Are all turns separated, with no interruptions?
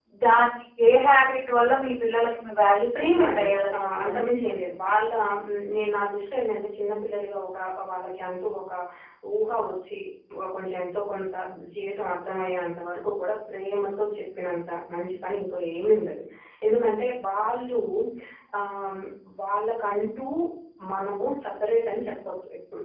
No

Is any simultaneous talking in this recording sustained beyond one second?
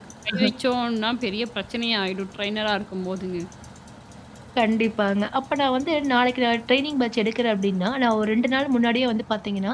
No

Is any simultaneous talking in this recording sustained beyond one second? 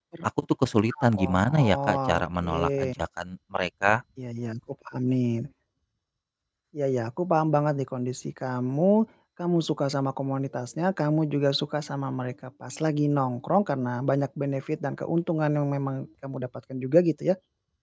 Yes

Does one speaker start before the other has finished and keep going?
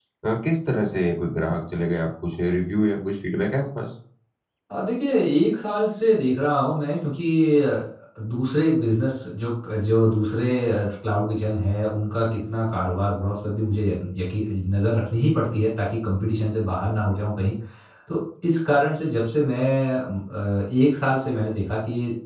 No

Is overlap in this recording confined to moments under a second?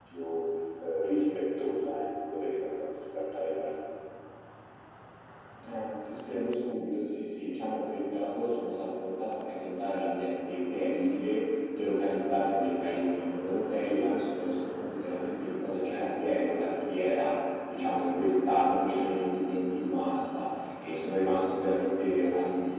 Yes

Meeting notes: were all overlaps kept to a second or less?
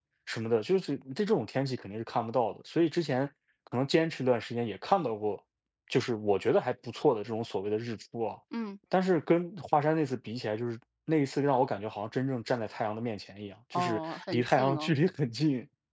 No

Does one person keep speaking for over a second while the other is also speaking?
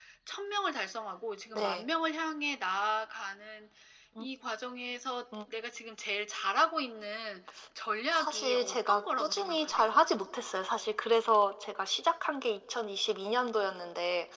Yes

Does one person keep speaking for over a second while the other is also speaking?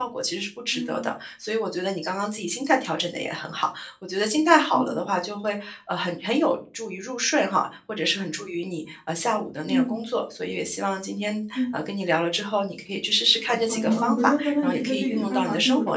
Yes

